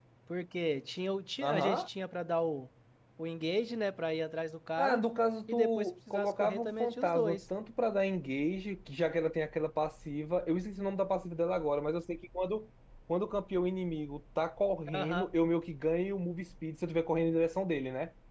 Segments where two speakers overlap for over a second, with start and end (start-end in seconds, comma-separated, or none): 5.5-7.4